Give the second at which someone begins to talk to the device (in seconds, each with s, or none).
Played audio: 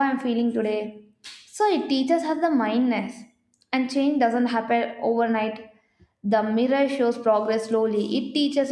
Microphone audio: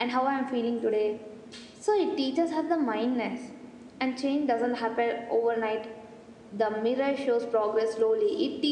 none